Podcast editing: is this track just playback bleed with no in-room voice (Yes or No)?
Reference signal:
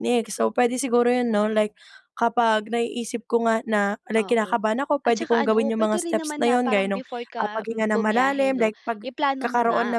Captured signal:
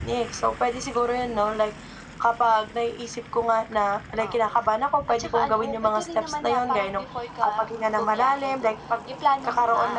Yes